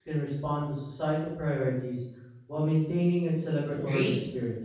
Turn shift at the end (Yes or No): Yes